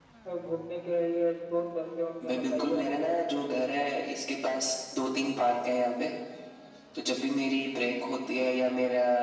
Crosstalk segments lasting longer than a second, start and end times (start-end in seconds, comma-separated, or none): 2.3-3.6